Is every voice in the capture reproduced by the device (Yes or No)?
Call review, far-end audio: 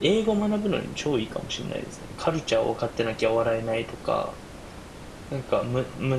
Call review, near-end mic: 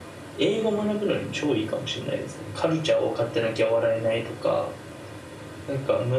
Yes